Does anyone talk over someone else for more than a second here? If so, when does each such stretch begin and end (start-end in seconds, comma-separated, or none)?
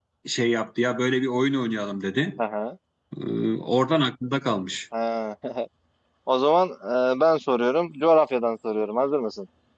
none